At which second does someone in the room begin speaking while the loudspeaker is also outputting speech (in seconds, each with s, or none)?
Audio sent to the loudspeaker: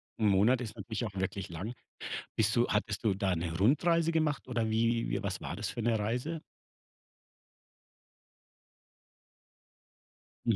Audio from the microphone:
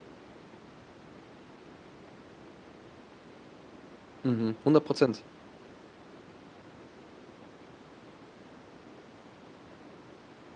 4.2 s